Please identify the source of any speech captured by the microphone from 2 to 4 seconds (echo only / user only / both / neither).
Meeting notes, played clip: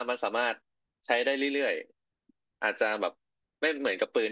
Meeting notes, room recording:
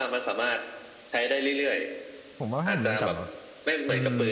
both